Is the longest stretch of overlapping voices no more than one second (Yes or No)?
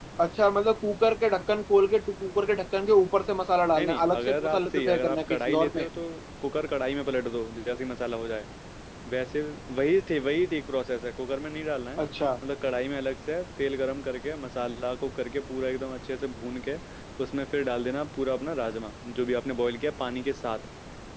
No